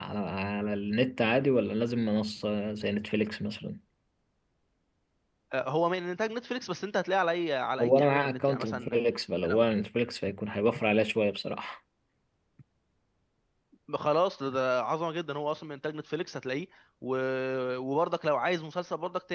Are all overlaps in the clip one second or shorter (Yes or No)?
No